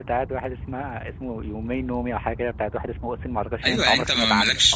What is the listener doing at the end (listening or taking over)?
taking over